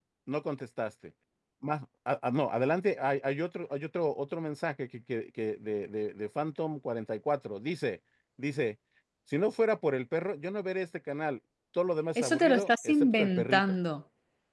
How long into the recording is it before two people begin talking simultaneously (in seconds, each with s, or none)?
12.2 s